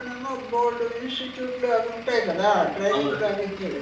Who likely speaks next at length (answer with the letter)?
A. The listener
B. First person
B